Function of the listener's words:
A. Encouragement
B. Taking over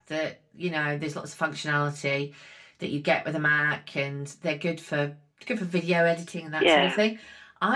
A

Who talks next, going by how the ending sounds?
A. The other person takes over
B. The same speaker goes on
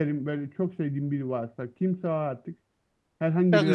A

